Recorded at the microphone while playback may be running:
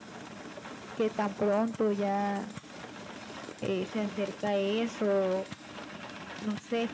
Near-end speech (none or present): none